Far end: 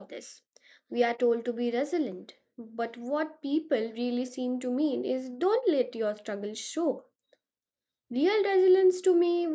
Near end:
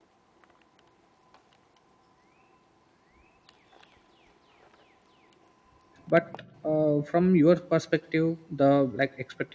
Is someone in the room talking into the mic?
Yes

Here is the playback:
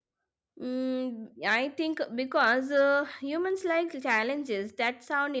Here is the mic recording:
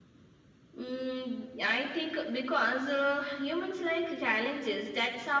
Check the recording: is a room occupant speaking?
No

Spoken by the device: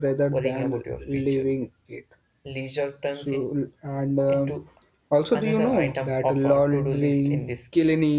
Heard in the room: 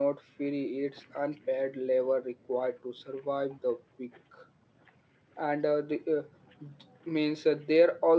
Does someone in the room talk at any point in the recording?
Yes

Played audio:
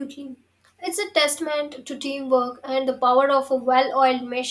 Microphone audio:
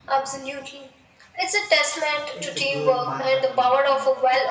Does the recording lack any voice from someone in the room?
No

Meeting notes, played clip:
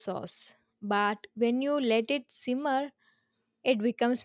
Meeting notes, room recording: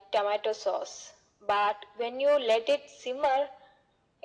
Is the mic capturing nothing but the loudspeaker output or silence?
Yes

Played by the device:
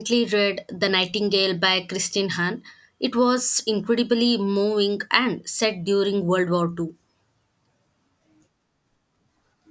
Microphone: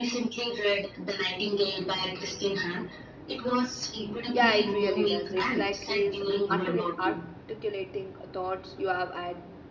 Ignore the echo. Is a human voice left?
Yes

